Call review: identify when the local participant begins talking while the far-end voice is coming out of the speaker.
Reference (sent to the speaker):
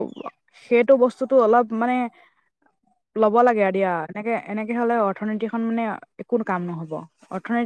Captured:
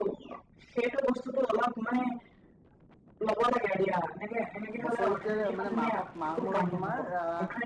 4.8 s

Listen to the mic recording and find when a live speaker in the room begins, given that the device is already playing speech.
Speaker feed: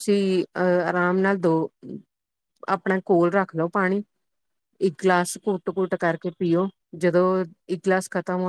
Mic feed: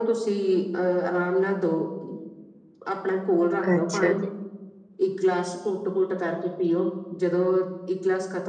3.7 s

